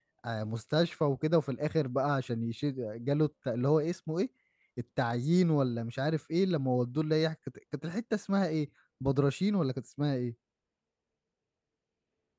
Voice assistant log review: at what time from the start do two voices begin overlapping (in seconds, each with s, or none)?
none